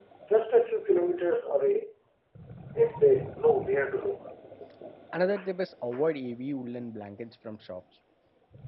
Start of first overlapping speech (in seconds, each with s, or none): none